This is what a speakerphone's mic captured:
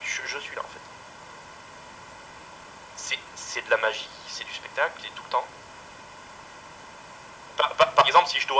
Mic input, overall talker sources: echo only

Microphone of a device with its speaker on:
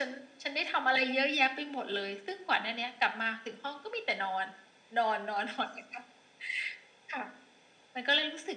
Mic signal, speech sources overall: echo only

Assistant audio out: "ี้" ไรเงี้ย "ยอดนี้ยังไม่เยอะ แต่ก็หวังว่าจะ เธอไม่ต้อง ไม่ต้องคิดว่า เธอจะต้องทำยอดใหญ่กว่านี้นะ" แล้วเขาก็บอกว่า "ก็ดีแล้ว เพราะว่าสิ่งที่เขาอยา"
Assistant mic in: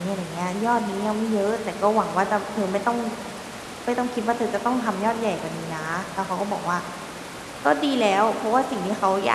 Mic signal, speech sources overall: echo only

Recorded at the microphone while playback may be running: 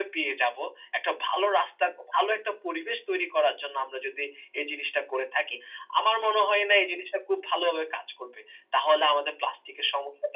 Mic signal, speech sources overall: echo only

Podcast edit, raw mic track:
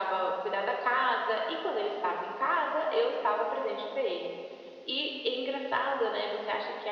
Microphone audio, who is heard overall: echo only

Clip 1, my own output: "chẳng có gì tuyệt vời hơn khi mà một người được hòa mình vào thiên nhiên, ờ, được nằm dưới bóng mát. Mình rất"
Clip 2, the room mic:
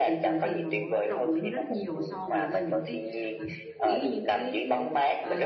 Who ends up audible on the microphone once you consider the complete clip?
both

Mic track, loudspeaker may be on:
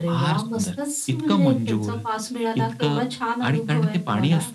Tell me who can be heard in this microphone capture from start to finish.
both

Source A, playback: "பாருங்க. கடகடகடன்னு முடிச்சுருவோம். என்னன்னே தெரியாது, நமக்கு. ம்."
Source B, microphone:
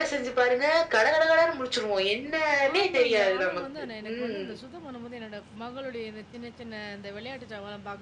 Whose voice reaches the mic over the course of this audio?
both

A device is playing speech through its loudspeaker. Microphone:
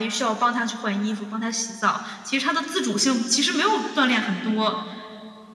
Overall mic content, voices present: echo only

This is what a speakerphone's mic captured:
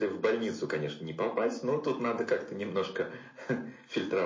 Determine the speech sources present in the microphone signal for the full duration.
echo only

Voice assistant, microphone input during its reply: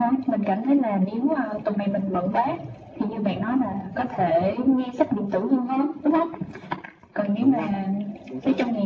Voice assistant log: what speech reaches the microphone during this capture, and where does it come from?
both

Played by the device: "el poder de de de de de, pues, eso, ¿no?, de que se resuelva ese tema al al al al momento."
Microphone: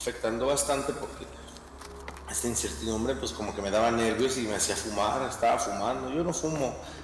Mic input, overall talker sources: user only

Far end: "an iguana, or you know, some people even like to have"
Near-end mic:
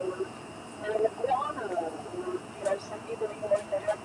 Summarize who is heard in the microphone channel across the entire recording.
echo only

